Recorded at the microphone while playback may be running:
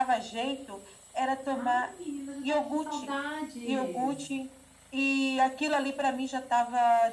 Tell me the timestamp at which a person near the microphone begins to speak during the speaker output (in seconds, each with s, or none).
1.5 s